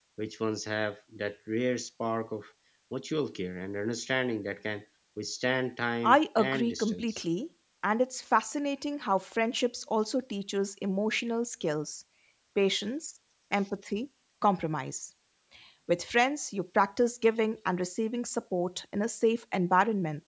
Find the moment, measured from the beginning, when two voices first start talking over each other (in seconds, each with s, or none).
6.0 s